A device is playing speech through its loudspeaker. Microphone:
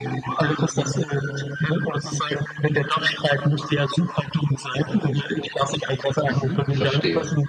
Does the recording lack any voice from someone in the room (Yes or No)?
No